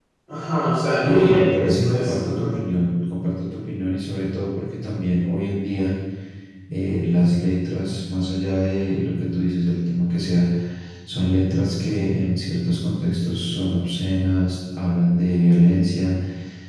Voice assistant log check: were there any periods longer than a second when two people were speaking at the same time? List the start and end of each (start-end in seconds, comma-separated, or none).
1.0-2.5